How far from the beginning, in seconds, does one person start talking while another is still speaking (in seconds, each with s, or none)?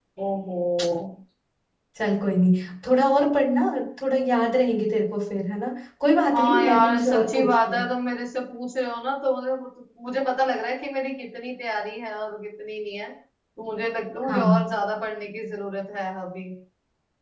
6.3 s